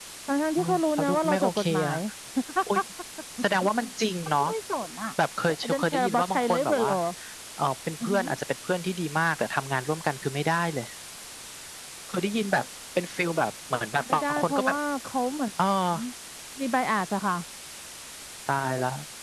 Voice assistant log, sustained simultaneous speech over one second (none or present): present